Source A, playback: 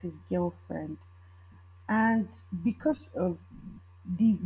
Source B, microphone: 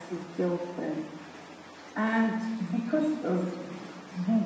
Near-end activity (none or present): none